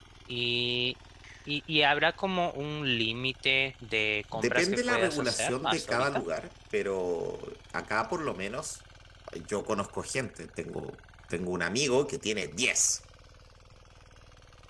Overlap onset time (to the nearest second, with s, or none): 4 s